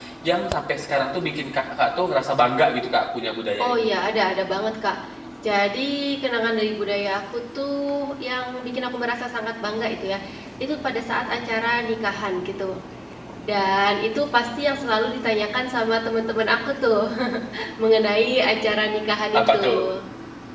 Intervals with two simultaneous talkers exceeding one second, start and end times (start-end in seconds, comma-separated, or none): none